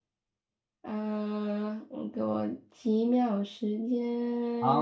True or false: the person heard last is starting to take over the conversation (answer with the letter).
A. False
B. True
B